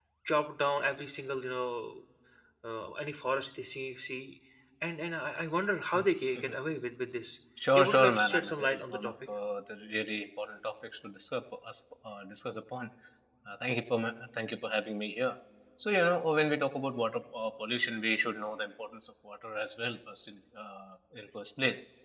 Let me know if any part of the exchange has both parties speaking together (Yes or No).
Yes